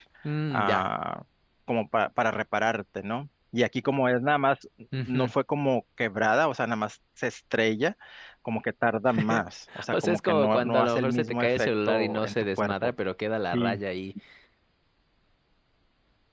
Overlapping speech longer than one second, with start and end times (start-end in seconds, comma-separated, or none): 9.9-12.7